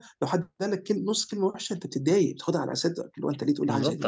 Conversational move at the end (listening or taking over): taking over